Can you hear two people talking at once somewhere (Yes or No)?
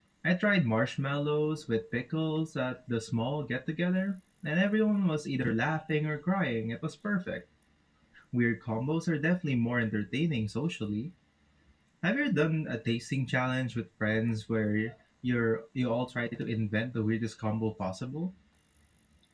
No